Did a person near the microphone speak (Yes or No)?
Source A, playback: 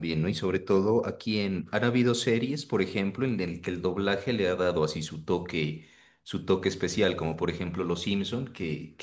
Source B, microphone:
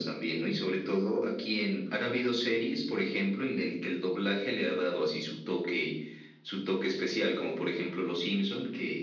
No